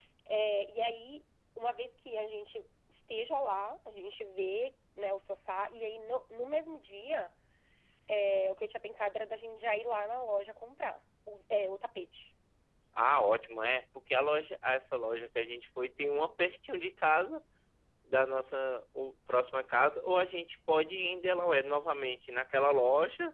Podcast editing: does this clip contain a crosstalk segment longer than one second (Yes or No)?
No